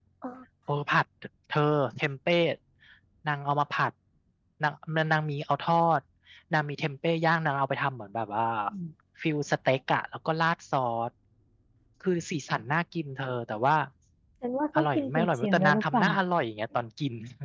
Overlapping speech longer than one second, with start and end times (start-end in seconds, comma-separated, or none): 14.8-16.1